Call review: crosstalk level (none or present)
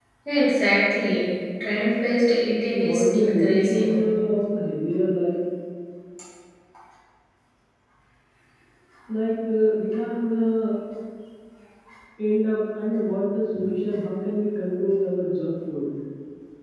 present